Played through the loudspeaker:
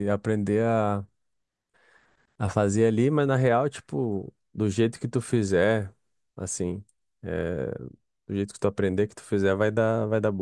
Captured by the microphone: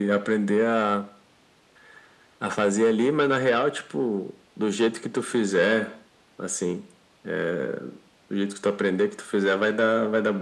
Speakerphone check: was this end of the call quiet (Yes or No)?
Yes